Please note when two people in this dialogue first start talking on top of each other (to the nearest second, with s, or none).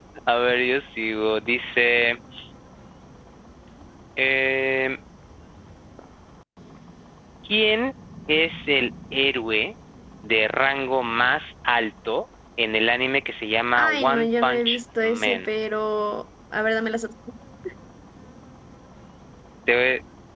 14 s